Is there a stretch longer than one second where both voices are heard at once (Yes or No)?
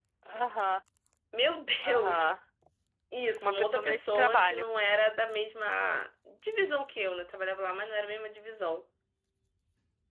Yes